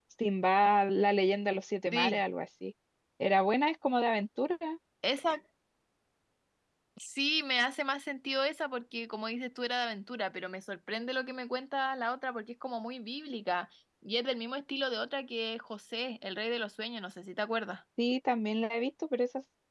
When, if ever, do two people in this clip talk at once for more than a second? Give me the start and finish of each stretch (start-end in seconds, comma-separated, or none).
none